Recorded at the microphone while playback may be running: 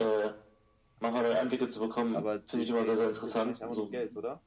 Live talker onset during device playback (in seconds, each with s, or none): 2.1 s